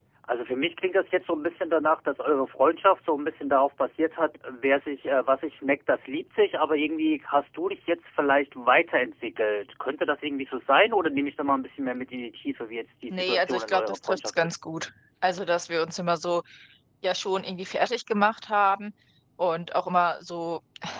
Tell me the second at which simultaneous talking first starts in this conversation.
13.1 s

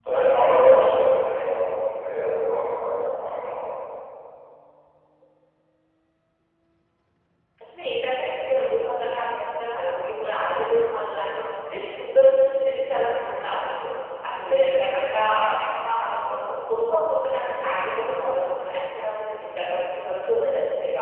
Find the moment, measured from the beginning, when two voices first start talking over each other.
none

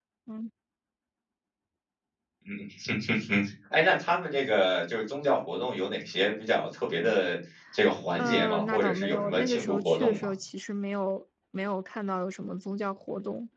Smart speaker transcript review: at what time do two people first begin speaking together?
8.1 s

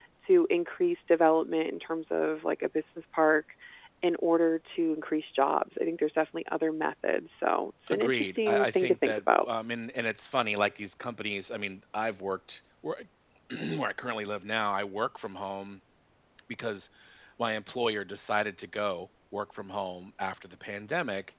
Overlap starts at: 7.9 s

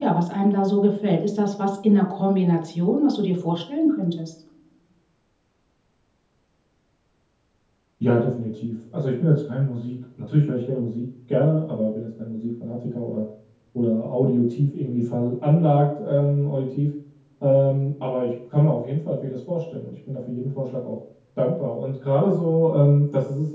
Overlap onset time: none

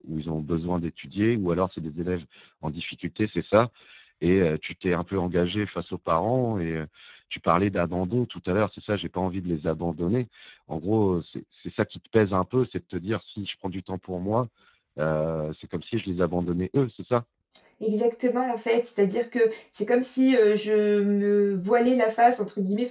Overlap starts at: none

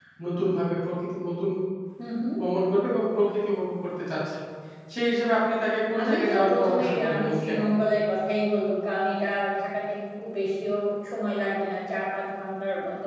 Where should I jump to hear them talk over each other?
5.9 s

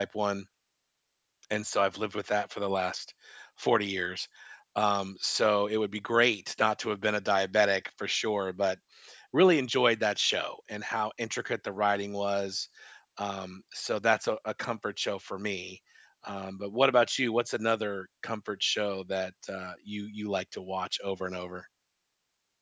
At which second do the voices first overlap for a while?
none

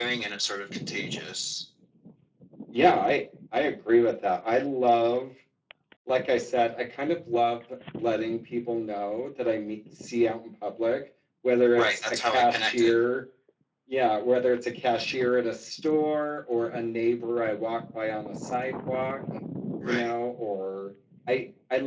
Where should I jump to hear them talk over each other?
11.7 s

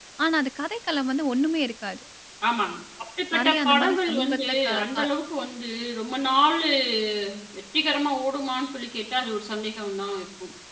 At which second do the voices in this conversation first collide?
3.3 s

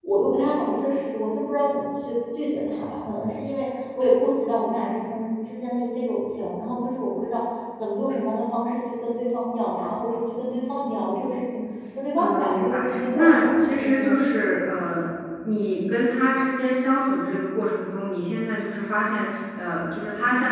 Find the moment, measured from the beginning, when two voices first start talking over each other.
12.2 s

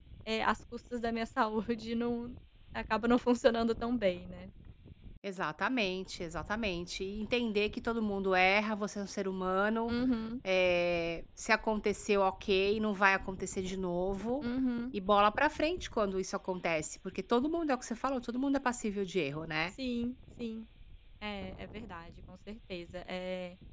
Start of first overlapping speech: none

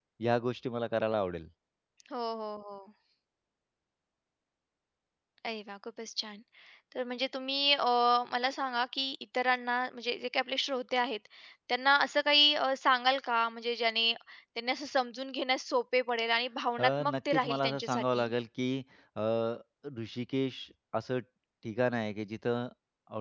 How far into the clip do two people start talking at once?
16.8 s

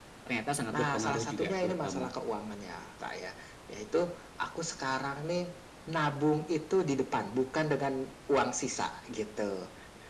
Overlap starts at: 0.7 s

